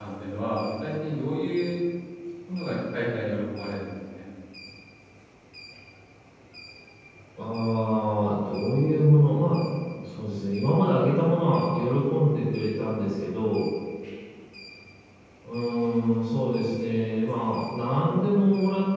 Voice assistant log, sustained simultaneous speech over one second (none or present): none